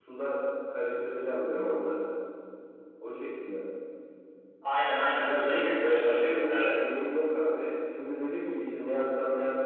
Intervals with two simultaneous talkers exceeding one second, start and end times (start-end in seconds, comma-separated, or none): 5.2-6.7